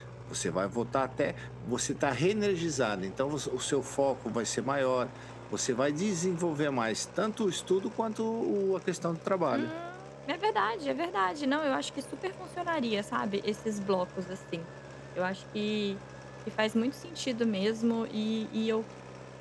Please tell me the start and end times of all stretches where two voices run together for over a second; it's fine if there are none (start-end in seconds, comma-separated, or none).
none